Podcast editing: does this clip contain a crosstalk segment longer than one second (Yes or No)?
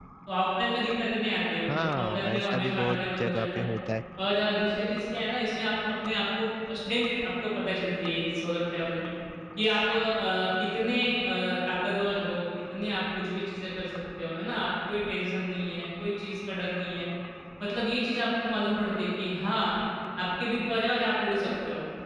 Yes